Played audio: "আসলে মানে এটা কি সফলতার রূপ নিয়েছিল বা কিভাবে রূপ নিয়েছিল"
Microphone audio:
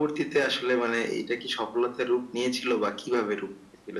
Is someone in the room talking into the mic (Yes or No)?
No